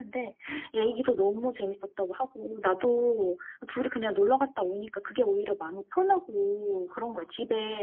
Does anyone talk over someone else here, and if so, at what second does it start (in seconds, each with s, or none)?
none